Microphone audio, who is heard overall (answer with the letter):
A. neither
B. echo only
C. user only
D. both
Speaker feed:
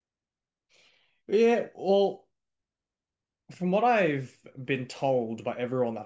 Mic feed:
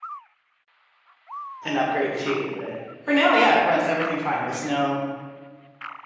C